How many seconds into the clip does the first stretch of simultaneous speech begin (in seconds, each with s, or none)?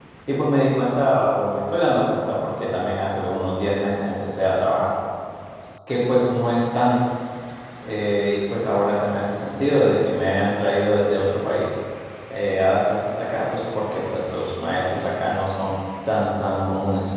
none